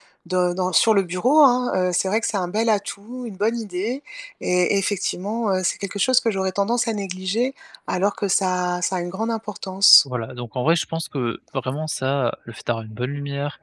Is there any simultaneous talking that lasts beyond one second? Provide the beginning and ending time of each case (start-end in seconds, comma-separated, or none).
none